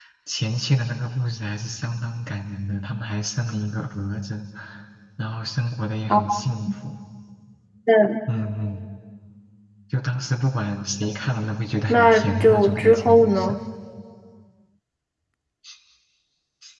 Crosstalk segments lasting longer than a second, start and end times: 11.9-13.5

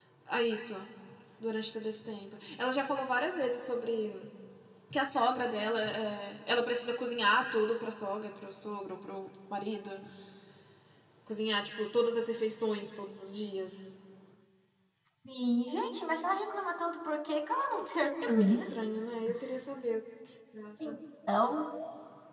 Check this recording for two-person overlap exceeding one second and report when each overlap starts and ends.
none

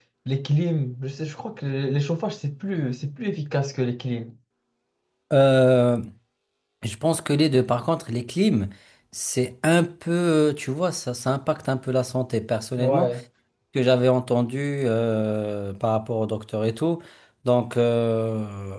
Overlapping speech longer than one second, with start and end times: none

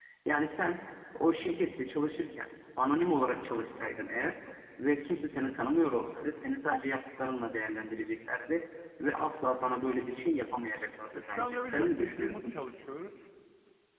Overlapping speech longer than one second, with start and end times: 11.3-12.6

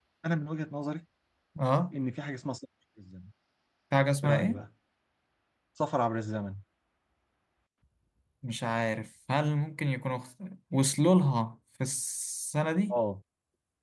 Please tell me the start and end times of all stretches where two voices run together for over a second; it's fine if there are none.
none

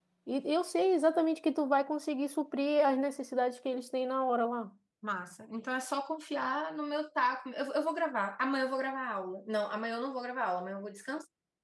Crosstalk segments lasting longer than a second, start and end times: none

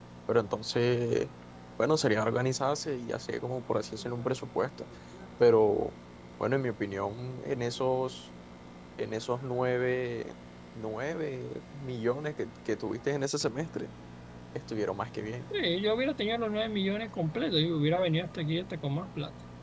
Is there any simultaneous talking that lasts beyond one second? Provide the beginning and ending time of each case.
none

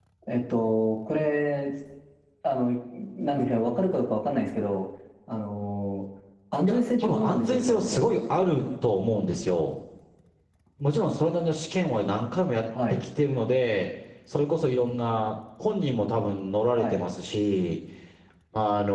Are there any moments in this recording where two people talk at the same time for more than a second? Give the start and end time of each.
6.7-8.0

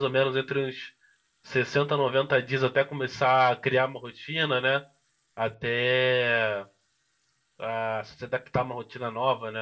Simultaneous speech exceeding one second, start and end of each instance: none

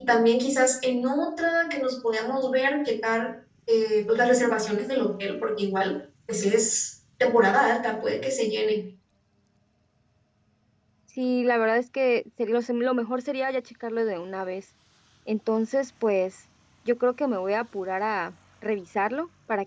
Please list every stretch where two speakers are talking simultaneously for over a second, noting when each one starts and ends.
none

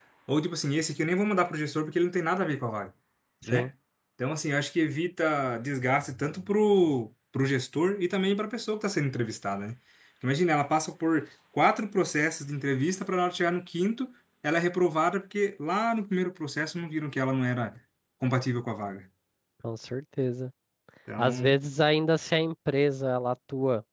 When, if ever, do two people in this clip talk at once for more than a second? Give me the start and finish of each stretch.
none

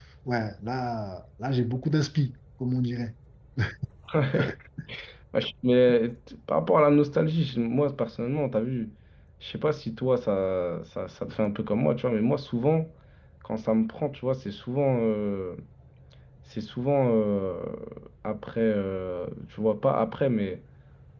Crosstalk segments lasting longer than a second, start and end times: none

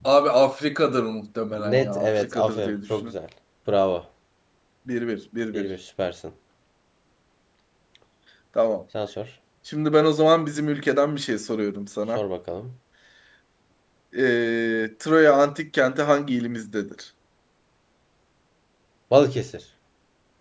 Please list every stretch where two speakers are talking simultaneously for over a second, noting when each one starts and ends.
1.6-3.1

